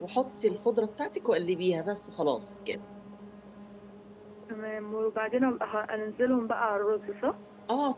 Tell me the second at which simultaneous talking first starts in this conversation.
none

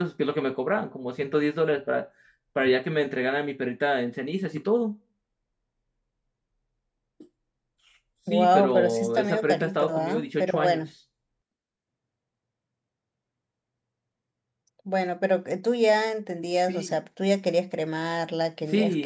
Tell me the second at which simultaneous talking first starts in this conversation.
8.3 s

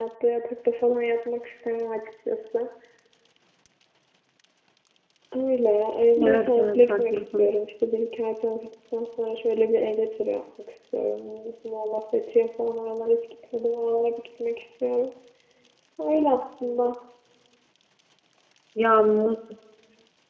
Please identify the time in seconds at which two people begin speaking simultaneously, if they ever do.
6.2 s

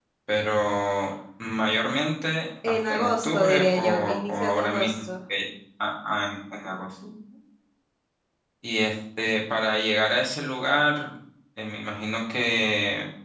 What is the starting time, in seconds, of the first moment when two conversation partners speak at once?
2.6 s

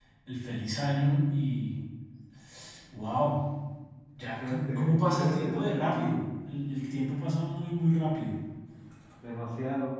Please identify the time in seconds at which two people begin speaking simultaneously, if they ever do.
4.4 s

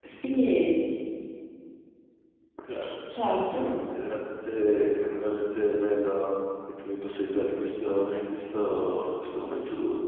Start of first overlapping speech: none

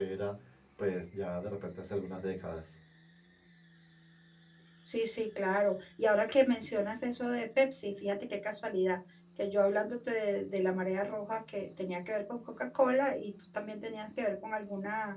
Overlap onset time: none

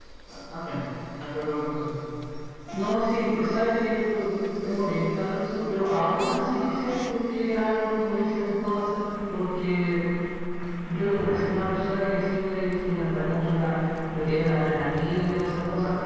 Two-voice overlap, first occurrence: none

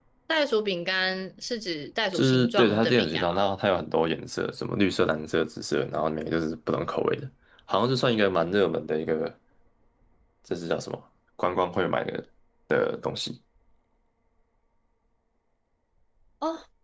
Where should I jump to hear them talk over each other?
2.1 s

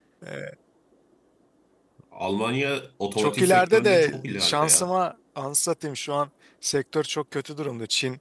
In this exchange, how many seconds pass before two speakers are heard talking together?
3.2 s

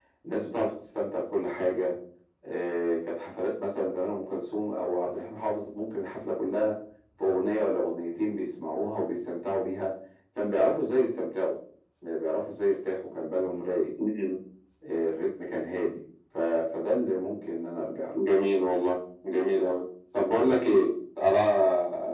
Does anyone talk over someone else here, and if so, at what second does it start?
none

